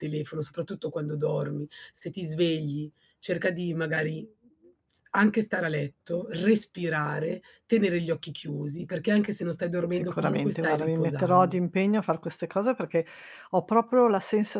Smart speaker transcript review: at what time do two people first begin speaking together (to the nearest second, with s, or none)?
10 s